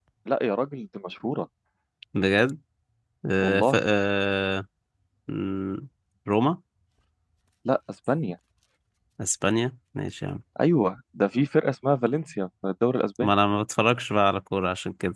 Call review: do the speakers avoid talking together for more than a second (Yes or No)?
Yes